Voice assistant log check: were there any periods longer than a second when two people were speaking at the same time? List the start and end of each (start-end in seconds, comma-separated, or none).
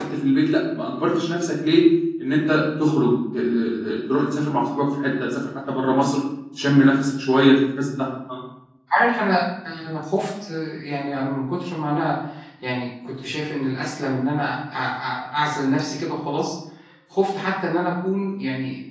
none